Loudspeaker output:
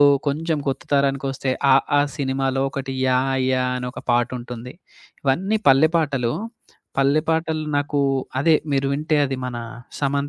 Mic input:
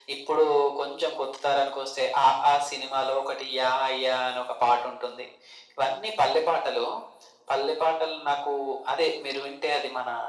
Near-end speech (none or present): none